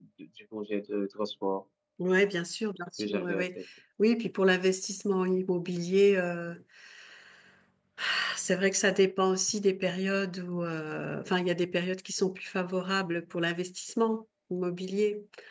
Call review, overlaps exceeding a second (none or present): none